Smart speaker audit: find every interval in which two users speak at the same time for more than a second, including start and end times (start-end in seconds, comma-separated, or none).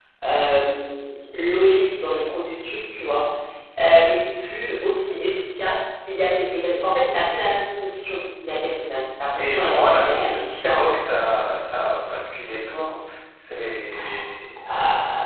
9.4-10.8